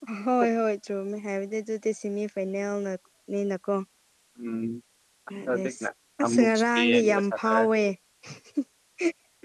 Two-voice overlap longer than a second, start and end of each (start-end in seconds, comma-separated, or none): 6.2-7.7